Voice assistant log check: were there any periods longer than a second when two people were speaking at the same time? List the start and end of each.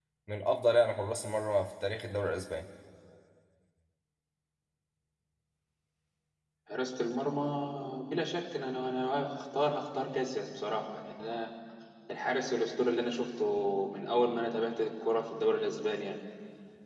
none

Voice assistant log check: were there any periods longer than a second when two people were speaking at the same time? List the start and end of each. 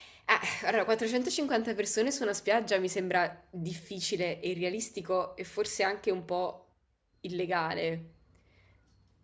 none

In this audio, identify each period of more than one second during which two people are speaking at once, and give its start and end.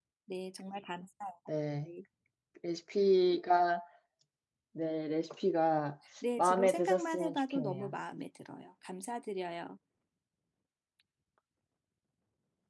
6.4-8.0

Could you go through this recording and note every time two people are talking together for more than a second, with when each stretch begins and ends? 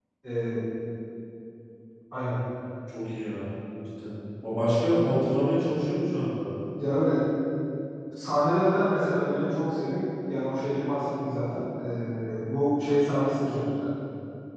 none

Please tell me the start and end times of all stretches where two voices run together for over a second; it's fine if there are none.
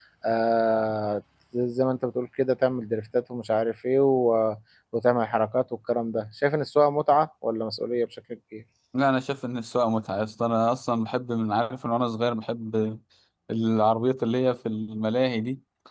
none

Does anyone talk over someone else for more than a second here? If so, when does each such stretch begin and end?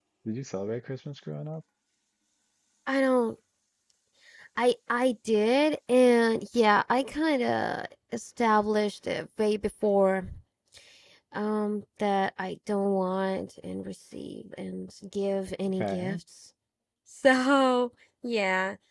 none

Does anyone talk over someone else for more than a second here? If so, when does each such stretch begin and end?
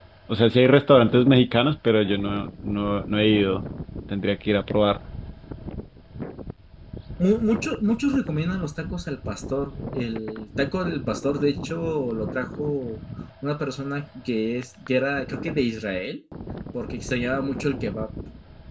none

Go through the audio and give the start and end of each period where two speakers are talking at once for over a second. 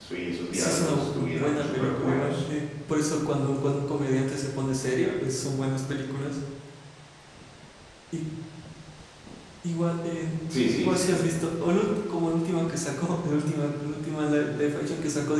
0.5-2.4

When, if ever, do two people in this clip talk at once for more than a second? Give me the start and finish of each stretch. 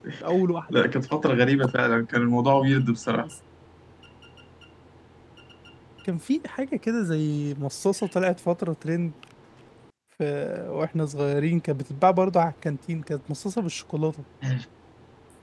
none

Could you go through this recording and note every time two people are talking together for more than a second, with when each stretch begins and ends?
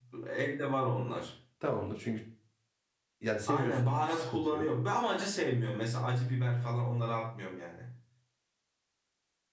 3.5-4.7

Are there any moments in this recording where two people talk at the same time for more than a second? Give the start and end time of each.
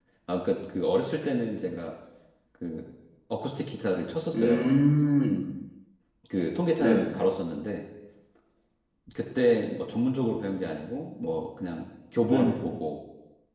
none

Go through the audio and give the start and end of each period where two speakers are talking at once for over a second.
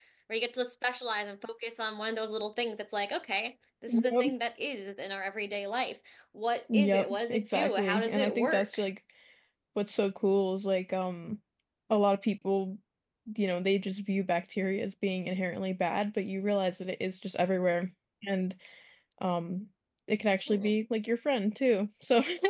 6.7-8.8

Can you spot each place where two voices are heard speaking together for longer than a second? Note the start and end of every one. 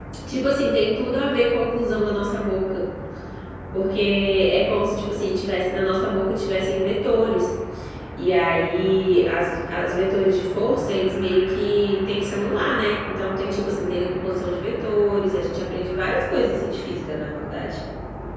none

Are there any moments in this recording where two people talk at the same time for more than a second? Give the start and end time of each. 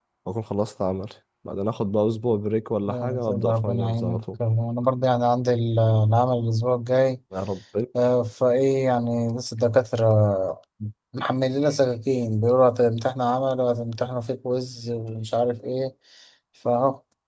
2.9-4.2

